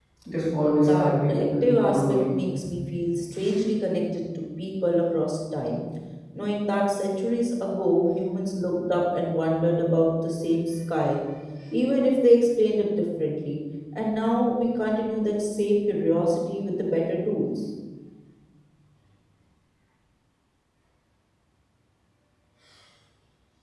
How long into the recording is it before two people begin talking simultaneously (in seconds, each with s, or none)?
0.8 s